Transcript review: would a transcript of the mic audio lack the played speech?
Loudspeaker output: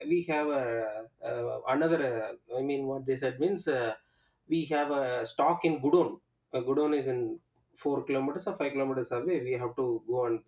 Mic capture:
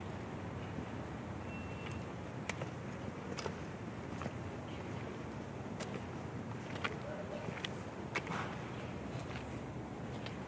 Yes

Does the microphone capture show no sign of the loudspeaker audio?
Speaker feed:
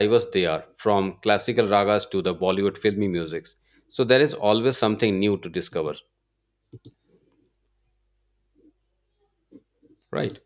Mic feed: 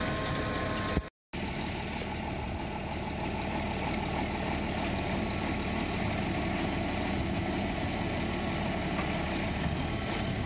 Yes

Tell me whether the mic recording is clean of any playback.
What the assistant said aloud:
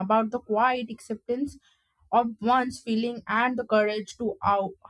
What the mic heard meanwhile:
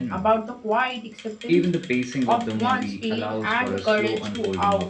No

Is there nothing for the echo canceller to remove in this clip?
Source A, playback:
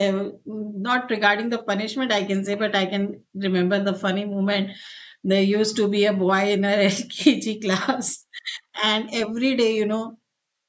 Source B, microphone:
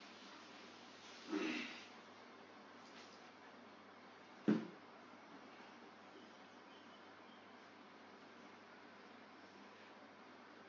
Yes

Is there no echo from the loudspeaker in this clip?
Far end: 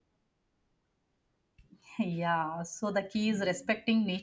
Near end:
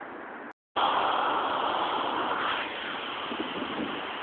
Yes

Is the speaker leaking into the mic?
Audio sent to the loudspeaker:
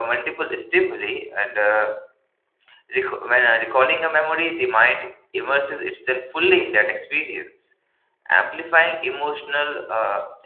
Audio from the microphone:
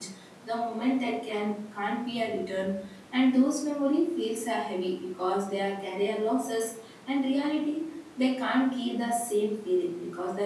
No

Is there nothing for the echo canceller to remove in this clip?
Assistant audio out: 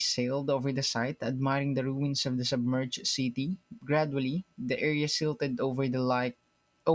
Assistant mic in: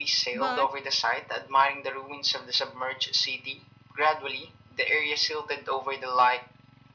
No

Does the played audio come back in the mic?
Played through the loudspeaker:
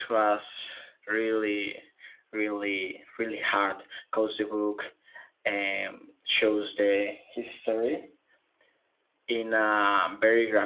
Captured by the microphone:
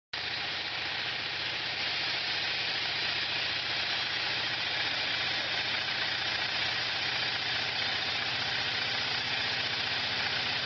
No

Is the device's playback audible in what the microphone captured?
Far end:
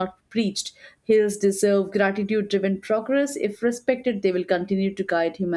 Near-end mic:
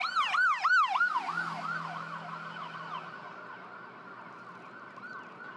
No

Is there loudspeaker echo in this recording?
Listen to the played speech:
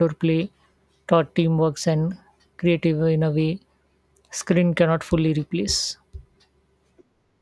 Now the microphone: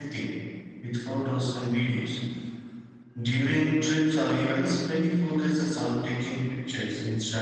No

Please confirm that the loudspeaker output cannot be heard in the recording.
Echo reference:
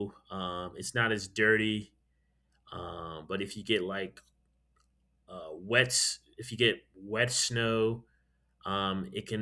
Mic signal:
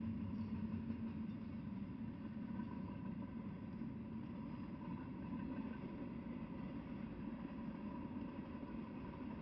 Yes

